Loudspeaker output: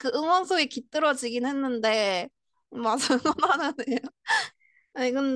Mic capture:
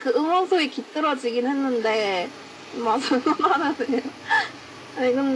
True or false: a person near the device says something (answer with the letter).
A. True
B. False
B